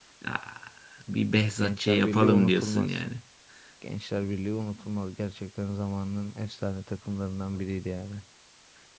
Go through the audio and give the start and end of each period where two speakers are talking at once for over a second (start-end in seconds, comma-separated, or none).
1.6-3.0